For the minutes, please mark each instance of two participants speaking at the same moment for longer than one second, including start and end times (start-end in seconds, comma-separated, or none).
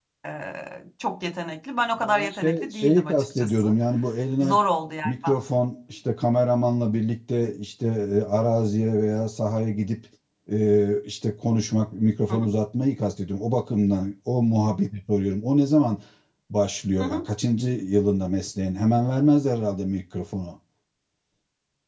2.1-3.7